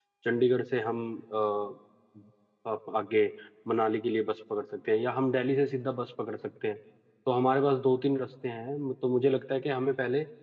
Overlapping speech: No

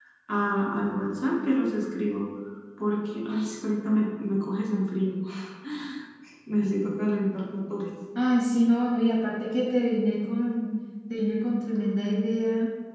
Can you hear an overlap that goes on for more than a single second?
No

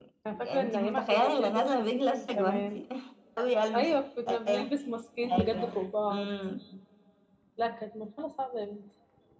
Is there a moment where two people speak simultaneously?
Yes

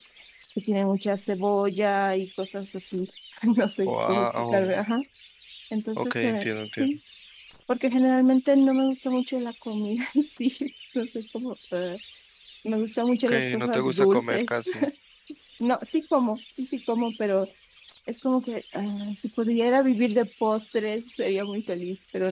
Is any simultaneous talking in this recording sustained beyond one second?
Yes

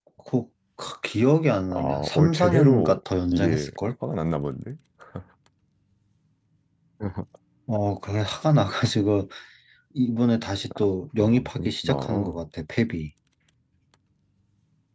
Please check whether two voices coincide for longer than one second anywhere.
Yes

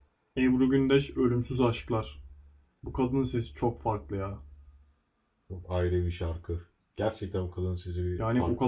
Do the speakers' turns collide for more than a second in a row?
No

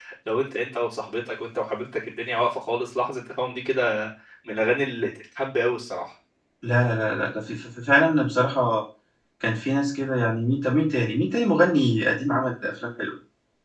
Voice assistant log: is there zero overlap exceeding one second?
Yes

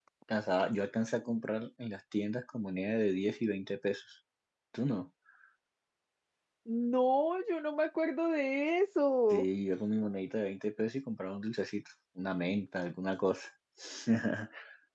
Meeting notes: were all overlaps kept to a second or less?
Yes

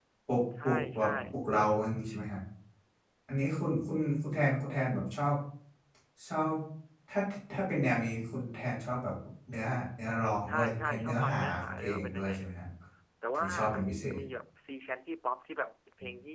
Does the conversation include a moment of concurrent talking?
Yes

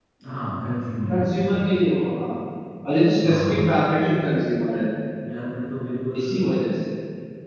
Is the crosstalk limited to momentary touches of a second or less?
Yes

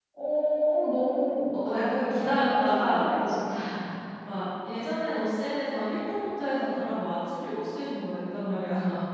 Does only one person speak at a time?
No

